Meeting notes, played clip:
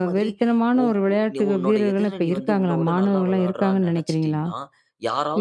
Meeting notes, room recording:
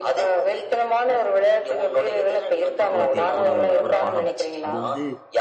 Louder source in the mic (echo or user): echo